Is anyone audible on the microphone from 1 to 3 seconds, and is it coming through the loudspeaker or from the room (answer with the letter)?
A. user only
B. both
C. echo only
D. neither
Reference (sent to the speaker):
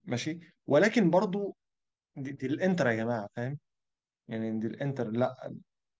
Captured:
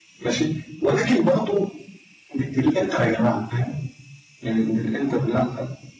C